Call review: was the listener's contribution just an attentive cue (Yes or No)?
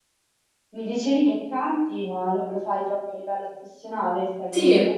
No